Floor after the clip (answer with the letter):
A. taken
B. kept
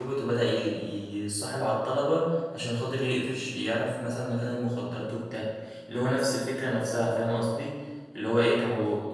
B